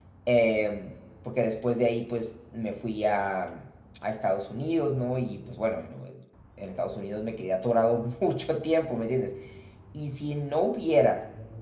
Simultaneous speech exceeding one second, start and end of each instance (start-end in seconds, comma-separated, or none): none